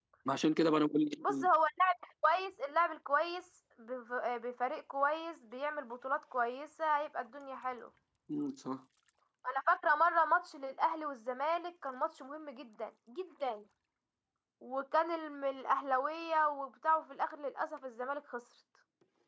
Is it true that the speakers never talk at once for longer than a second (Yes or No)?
Yes